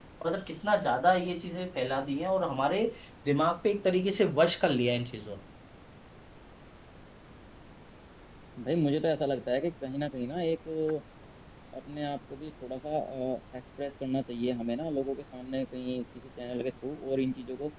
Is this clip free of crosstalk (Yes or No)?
Yes